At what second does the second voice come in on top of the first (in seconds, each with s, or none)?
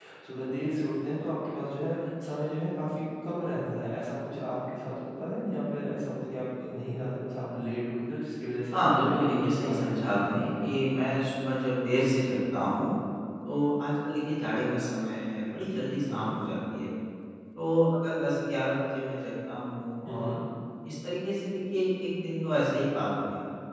8.7 s